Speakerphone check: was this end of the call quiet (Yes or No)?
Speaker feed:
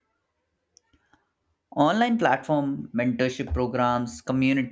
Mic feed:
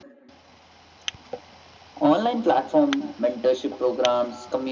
Yes